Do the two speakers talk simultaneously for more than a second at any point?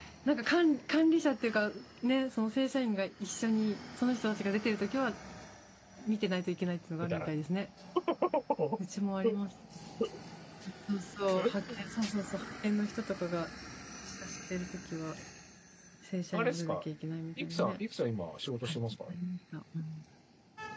No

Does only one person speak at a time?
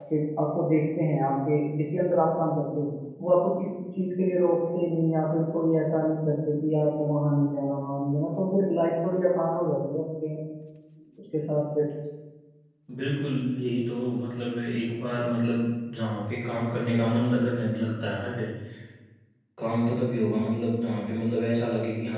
Yes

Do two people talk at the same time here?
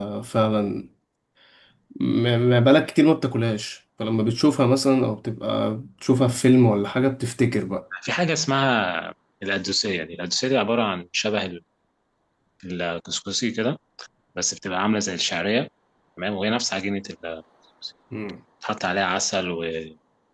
No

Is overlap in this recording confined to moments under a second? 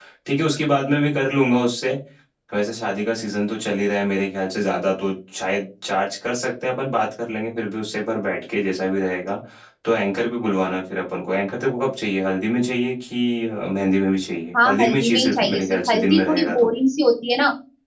No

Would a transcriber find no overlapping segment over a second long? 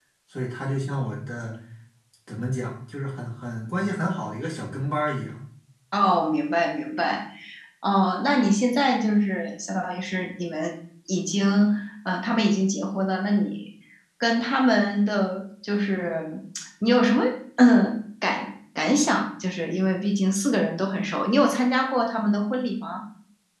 Yes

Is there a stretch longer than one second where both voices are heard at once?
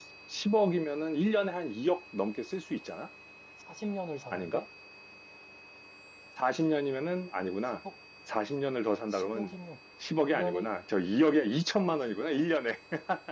No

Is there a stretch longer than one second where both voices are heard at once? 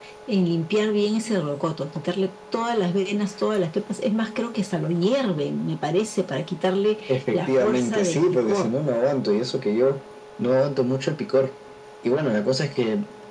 Yes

